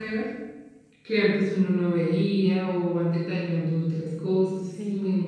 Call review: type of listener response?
taking over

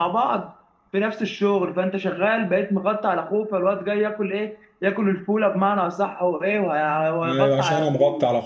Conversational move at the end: taking over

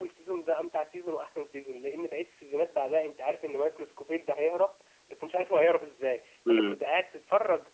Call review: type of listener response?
listening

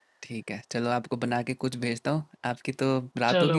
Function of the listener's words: taking over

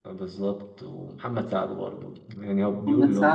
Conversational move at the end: taking over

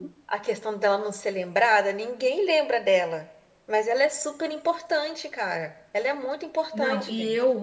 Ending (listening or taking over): taking over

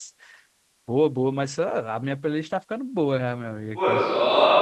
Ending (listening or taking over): taking over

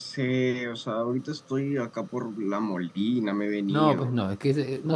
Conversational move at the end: taking over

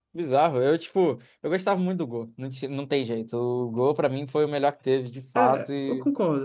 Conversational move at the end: taking over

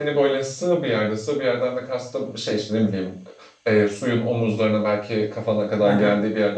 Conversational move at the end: listening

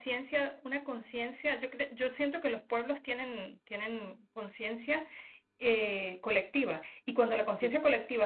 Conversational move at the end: listening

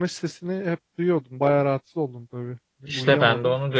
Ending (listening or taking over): taking over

